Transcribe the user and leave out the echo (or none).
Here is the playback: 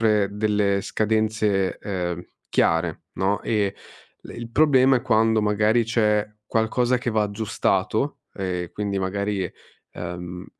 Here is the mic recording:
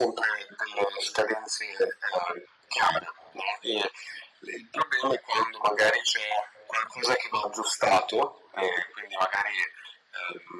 none